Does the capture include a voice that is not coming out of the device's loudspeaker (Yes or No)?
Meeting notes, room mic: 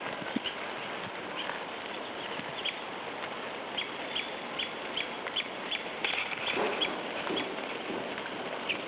No